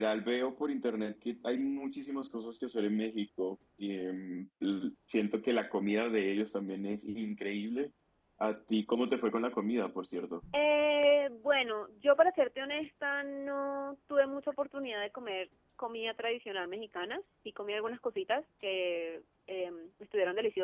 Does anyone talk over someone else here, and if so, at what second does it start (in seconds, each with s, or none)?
none